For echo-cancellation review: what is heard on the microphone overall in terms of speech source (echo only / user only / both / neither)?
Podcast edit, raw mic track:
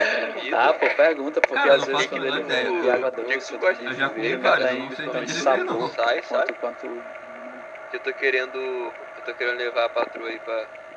both